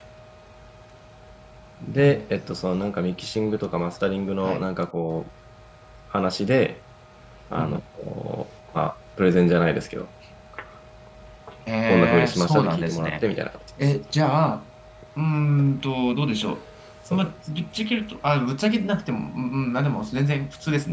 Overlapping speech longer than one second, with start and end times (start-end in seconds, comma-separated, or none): 11.9-13.2